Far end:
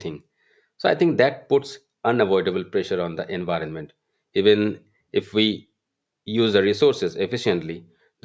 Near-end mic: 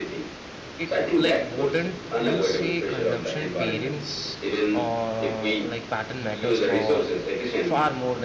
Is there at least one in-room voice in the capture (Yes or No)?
Yes